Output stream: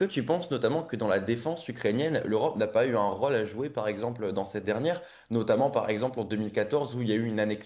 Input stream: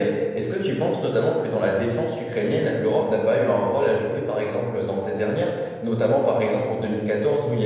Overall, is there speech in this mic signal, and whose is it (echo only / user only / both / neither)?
echo only